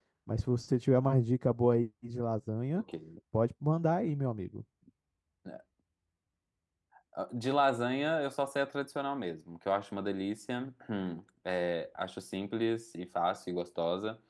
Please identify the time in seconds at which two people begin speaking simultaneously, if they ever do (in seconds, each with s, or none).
none